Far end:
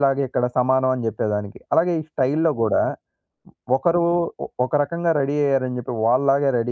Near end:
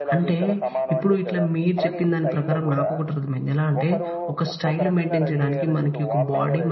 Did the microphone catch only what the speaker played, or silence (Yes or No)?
No